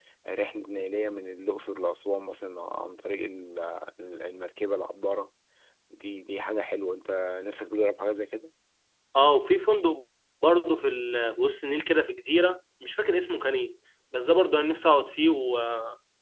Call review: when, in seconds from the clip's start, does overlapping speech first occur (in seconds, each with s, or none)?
none